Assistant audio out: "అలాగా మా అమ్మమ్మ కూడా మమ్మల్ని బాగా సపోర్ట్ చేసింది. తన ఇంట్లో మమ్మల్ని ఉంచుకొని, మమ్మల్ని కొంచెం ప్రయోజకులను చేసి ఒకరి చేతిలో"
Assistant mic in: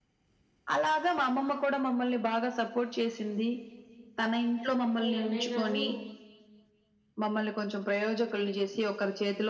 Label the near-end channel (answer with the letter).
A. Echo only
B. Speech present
B